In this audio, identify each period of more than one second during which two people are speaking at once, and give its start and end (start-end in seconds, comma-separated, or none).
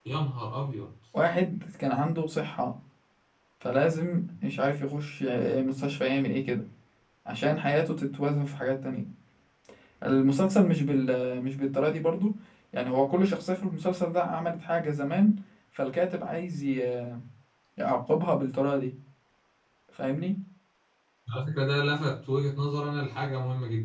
none